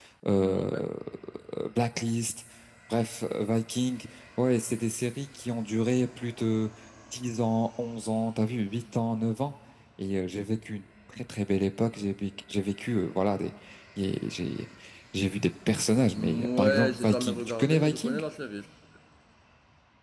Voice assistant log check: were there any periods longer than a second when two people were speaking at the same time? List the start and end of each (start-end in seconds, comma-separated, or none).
16.1-18.2